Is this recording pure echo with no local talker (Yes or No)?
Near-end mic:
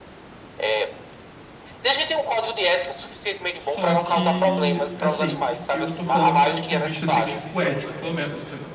No